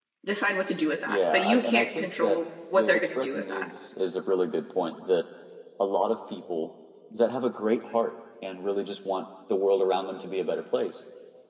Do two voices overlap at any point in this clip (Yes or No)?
Yes